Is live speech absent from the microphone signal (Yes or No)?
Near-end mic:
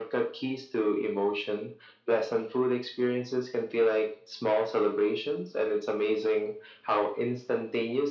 Yes